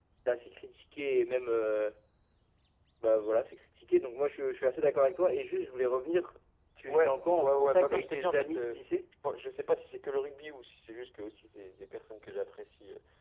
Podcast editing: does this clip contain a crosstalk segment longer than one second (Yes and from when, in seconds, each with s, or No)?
Yes, from 6.9 s